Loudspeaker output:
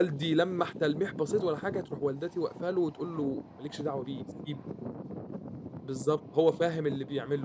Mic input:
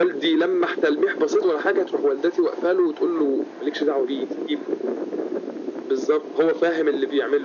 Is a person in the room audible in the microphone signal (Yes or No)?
No